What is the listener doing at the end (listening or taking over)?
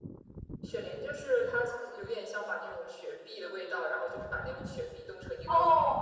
taking over